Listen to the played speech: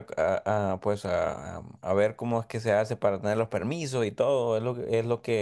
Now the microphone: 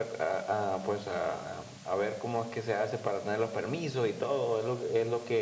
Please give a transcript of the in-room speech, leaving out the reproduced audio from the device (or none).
none